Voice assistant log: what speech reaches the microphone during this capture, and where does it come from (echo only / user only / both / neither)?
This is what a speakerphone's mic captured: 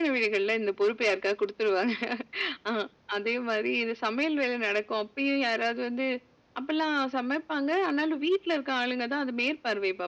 echo only